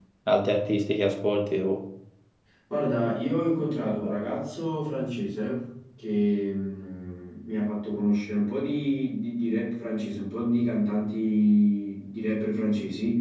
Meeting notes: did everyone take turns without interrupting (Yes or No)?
Yes